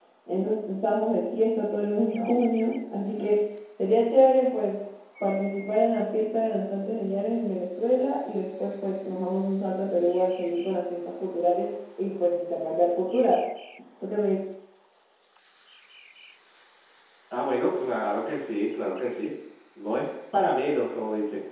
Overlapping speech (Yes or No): No